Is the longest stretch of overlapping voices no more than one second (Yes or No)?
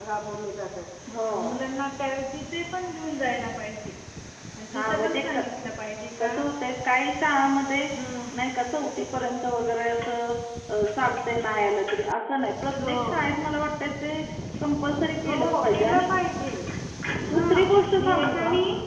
No